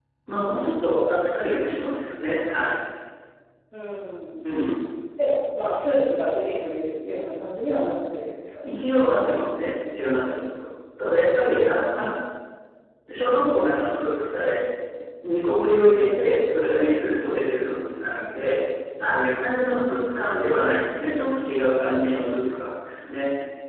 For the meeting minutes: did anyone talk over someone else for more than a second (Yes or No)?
No